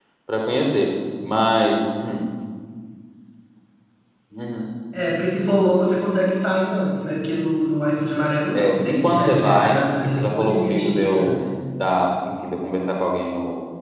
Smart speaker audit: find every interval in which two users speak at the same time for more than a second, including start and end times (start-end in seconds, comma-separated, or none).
8.5-11.4